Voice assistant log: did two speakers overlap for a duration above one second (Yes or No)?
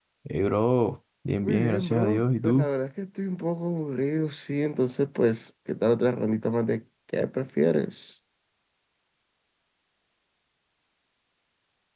Yes